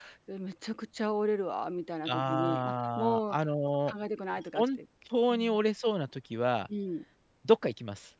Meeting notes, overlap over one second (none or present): present